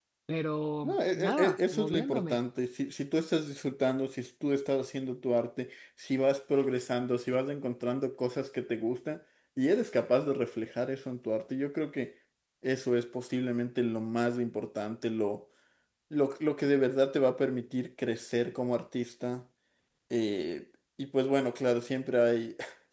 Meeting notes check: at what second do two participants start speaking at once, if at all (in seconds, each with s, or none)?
0.8 s